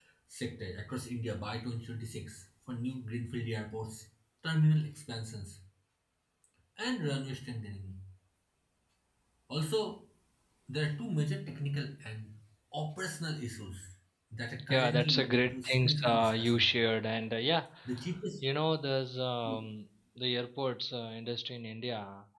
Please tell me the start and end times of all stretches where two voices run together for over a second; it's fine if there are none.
14.7-16.7

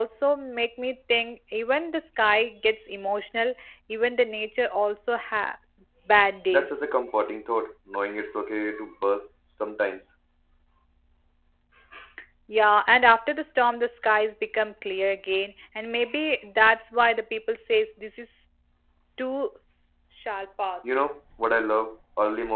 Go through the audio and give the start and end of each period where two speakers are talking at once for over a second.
none

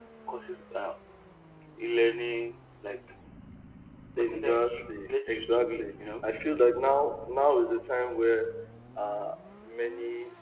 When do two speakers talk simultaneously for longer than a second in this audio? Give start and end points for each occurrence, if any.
4.2-6.2

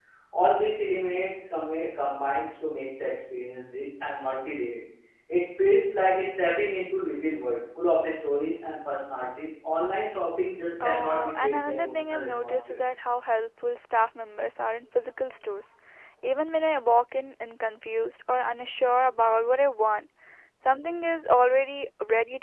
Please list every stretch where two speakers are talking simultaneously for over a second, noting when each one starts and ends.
10.8-12.8

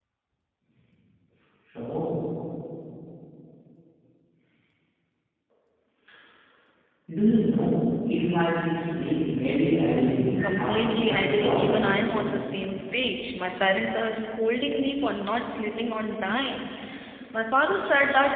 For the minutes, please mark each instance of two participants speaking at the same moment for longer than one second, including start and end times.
10.4-11.9

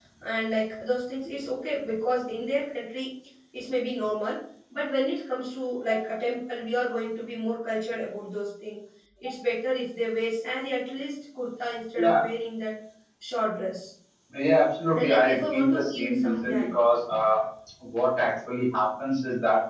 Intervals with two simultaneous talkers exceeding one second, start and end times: 14.9-16.8

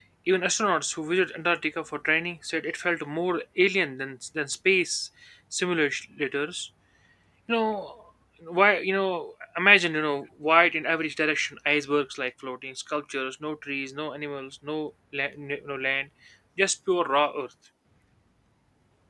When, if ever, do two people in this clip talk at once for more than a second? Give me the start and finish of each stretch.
none

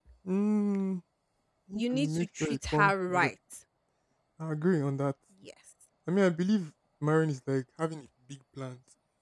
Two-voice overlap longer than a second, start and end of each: 1.8-3.3

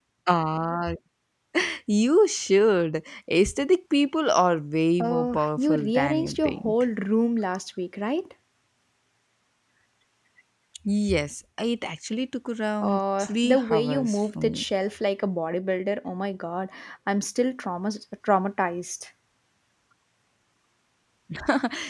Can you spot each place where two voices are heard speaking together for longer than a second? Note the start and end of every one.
5.0-6.7, 12.8-14.6

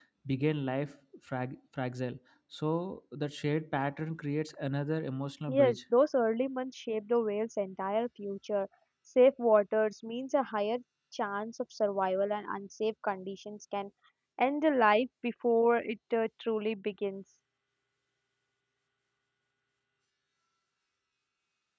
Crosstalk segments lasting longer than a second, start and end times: none

